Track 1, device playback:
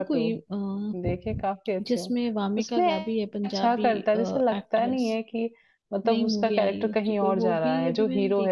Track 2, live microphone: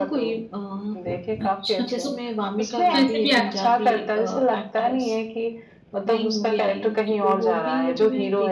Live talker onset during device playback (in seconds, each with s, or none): 1.4 s